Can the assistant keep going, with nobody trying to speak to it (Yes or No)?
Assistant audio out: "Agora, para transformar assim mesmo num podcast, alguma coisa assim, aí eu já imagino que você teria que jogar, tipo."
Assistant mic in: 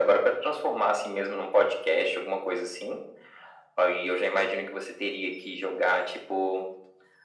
Yes